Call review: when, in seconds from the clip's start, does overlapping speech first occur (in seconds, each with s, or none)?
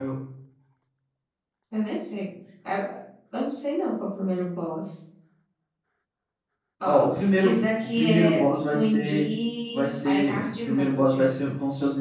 6.8 s